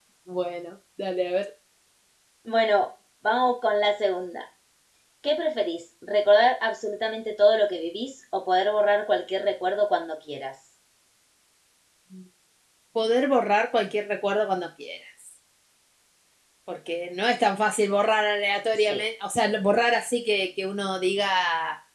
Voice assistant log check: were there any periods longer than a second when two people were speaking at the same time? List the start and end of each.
none

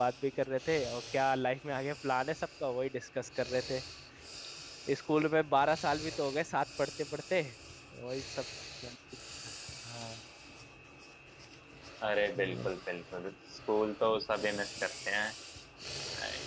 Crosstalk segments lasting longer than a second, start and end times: none

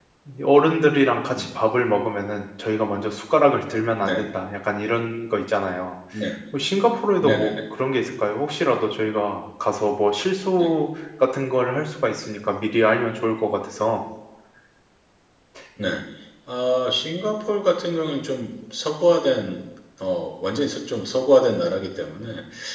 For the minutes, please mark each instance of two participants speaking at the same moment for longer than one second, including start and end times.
none

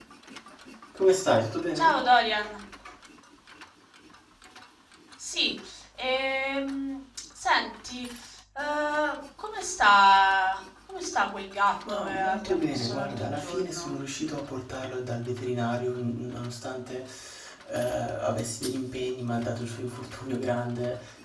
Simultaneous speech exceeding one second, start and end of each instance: 11.9-13.9

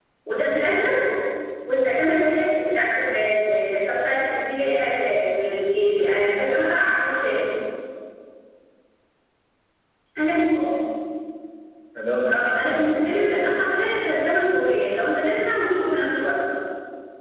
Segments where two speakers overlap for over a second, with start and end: 12.3-13.7

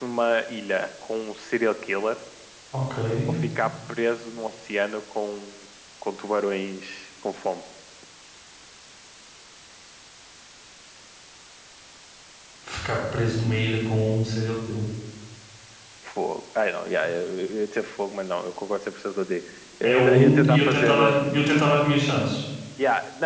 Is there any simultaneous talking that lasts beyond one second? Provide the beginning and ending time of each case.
19.8-21.2

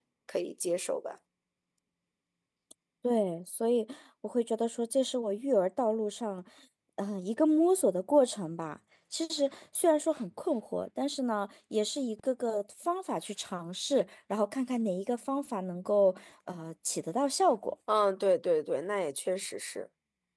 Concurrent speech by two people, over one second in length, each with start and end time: none

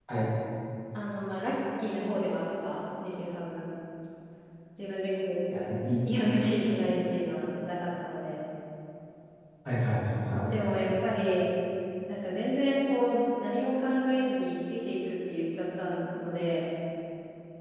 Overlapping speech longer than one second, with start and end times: none

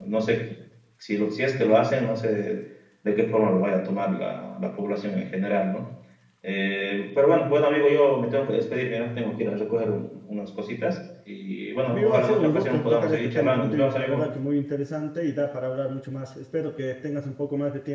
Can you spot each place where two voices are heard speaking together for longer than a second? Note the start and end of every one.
11.9-14.3

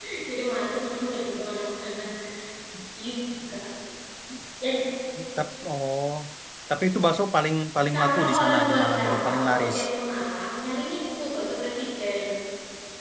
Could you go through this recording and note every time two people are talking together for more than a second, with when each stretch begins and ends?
7.9-9.8

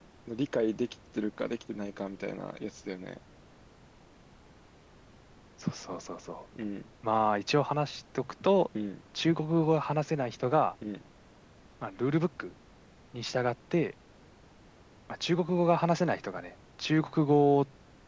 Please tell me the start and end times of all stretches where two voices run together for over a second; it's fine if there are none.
none

